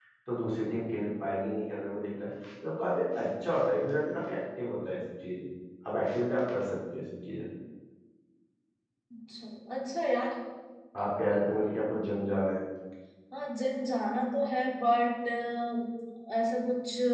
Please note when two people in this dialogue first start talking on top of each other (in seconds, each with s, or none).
none